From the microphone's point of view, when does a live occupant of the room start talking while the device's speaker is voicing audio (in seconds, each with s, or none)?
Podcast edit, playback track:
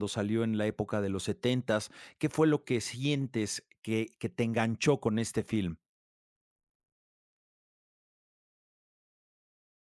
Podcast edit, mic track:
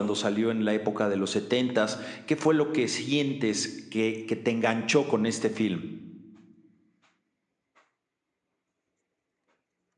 none